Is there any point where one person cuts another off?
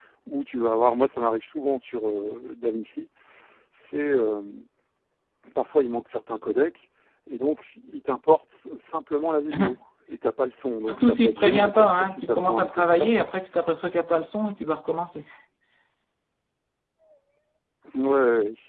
Yes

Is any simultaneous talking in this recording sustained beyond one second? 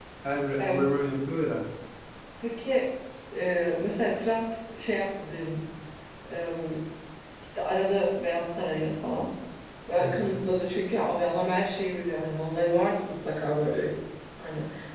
No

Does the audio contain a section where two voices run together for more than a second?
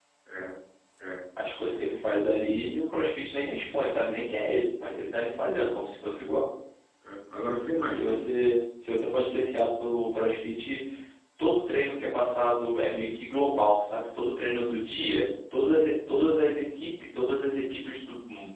No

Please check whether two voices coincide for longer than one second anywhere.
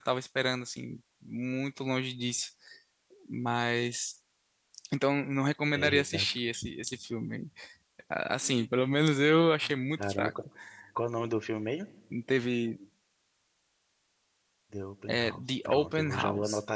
Yes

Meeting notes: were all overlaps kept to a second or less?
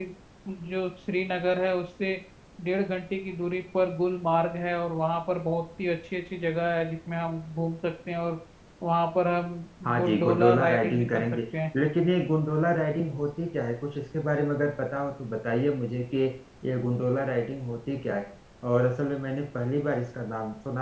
No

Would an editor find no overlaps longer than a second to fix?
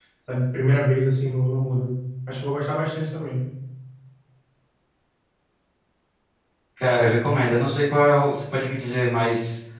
Yes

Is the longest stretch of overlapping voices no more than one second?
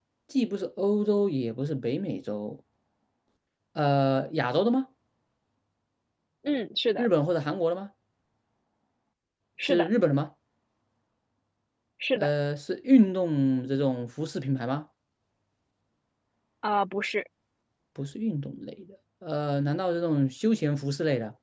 Yes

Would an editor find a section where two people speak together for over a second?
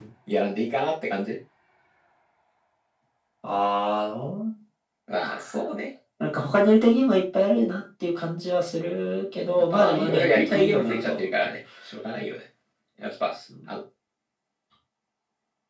Yes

